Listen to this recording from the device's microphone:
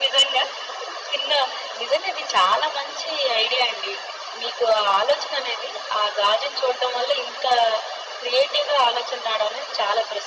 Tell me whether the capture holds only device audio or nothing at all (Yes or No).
Yes